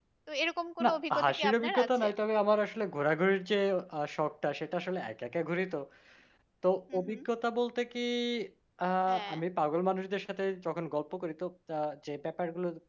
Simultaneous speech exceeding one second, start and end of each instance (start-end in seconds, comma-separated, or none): 0.8-2.0